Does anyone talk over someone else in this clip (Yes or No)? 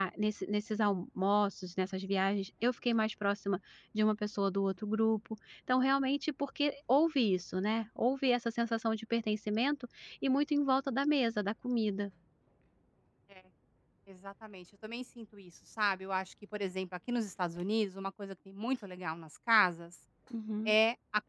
No